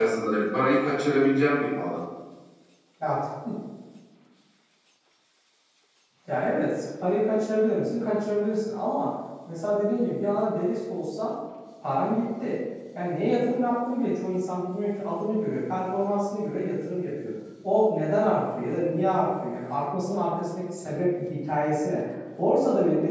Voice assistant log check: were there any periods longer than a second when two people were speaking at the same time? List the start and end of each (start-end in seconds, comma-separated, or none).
none